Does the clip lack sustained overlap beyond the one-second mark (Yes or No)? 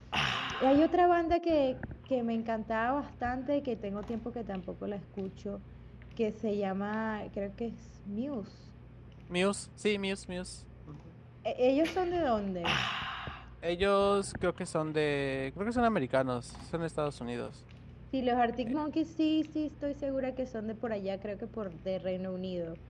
Yes